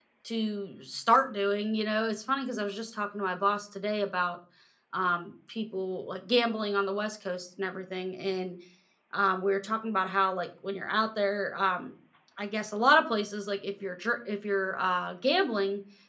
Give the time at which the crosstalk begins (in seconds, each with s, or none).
none